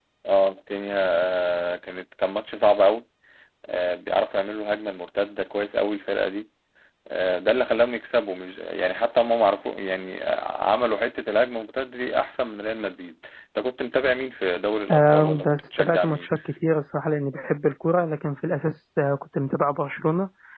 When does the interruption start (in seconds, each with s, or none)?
14.9 s